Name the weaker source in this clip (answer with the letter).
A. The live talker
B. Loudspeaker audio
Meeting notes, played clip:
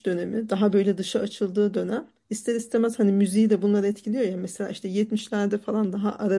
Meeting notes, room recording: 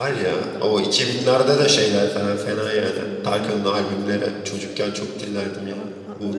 B